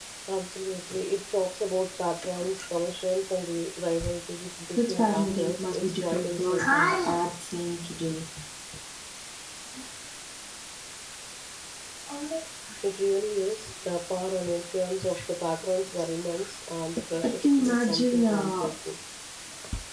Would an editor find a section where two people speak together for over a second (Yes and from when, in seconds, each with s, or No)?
Yes, from 4.8 s